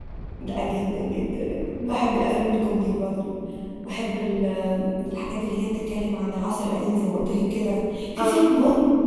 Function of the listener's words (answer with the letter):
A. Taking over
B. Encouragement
B